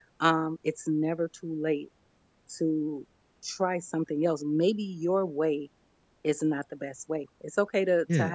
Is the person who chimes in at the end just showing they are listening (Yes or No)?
Yes